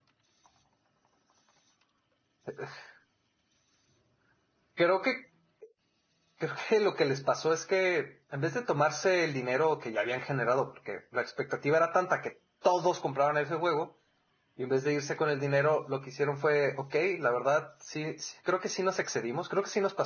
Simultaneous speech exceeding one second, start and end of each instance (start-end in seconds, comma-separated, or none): none